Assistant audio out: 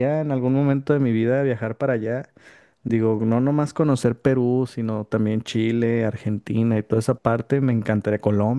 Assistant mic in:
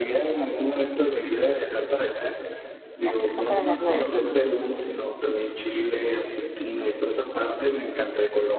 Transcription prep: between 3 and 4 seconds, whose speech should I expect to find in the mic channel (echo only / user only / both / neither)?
both